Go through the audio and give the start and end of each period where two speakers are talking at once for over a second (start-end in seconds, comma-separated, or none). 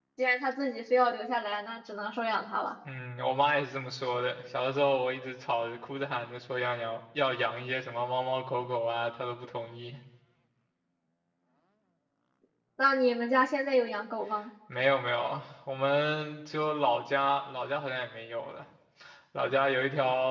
none